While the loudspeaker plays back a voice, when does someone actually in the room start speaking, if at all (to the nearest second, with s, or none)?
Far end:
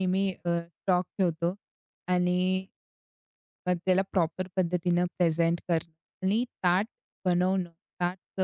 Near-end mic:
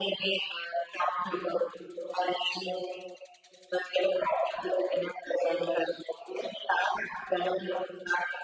none